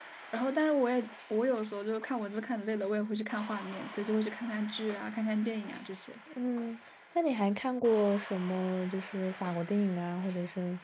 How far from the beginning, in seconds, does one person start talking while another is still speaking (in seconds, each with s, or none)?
none